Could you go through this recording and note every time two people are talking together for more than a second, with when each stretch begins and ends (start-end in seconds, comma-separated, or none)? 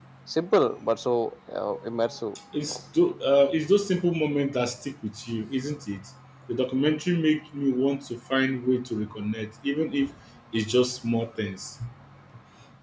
none